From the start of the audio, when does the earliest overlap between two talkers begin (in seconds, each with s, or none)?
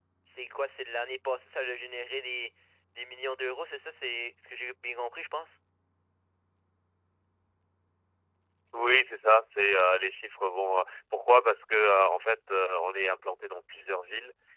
none